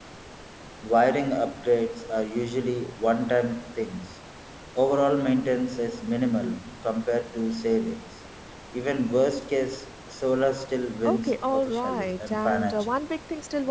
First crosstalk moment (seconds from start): 11.1 s

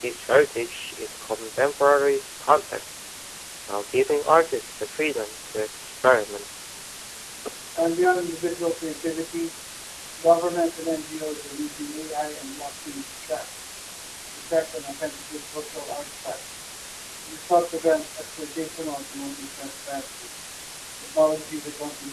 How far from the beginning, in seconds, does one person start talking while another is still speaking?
none

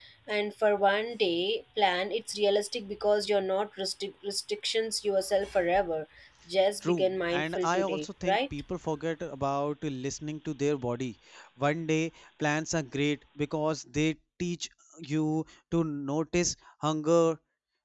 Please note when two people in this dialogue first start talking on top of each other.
6.9 s

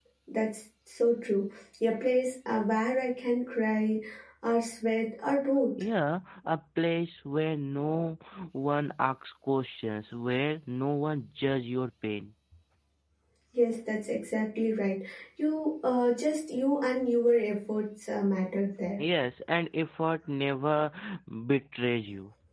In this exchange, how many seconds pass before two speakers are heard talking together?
none

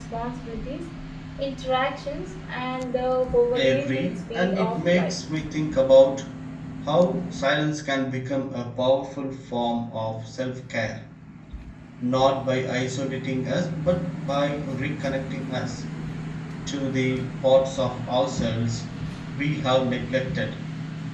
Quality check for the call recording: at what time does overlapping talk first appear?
3.5 s

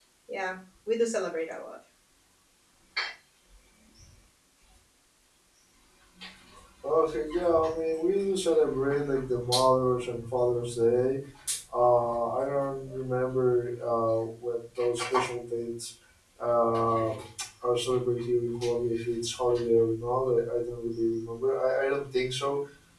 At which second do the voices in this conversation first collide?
none

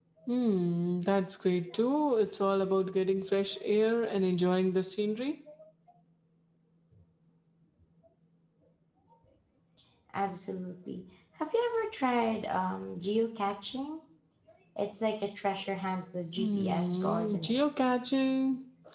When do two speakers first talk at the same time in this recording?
16.4 s

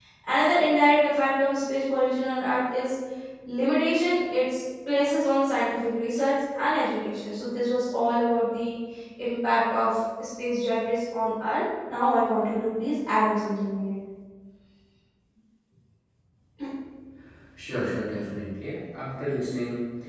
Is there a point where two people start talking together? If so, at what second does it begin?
none

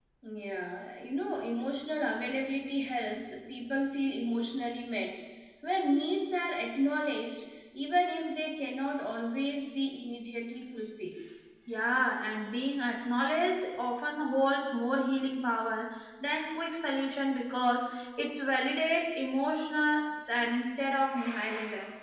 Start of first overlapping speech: none

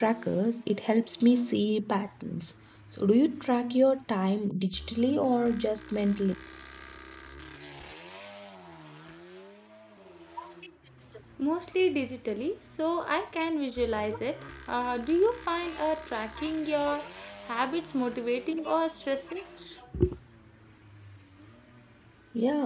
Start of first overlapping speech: none

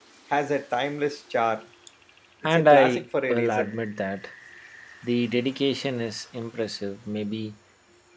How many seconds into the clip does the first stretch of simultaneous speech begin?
2.4 s

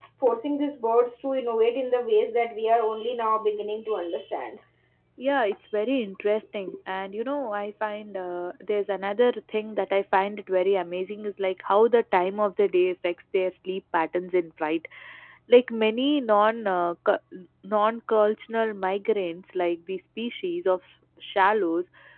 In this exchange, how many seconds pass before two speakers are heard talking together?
none

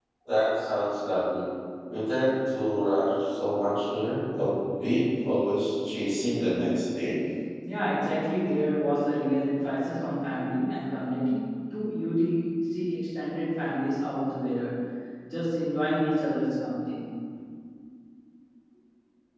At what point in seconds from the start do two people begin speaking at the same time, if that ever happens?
none

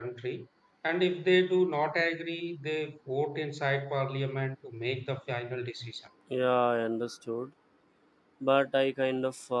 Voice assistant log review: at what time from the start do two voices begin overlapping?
none

